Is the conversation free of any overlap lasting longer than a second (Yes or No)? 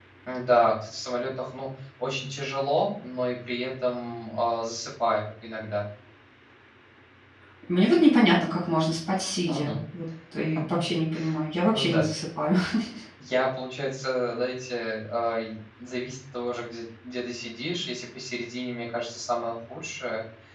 Yes